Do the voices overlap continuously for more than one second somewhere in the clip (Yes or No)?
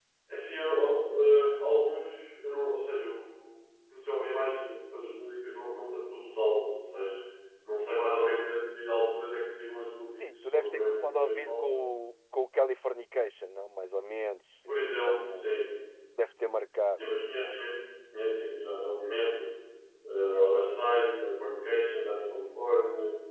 Yes